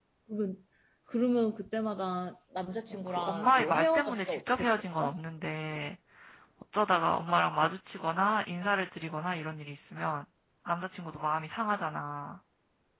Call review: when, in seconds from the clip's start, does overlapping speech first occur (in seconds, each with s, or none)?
3.1 s